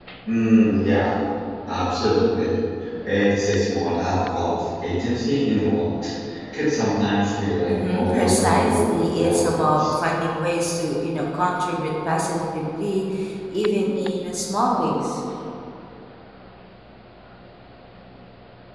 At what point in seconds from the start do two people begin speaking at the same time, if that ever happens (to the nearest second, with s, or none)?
8 s